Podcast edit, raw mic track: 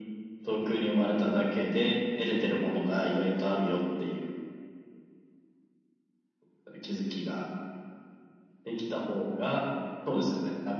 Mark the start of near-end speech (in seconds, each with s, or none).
none